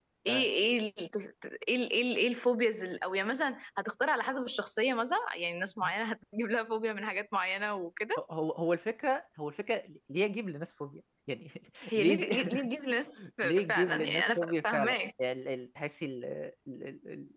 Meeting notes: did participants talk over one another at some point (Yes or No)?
Yes